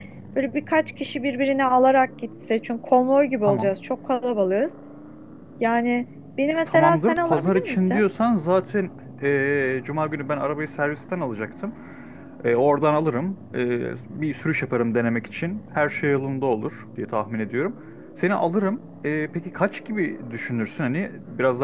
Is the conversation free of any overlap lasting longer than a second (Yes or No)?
No